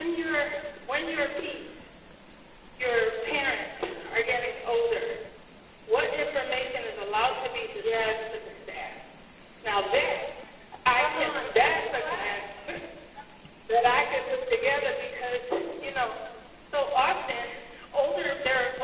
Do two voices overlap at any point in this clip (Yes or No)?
Yes